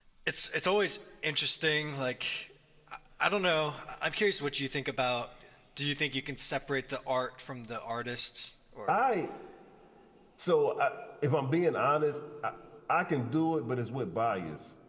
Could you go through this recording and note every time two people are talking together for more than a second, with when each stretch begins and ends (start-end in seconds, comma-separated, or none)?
none